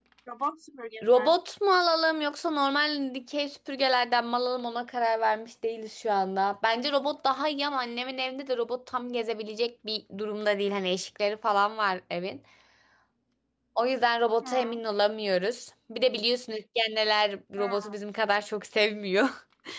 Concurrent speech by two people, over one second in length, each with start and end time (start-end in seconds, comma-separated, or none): none